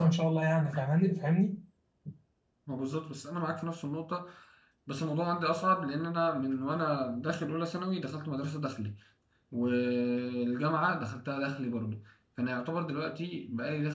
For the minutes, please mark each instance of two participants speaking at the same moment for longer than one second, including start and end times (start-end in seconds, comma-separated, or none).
none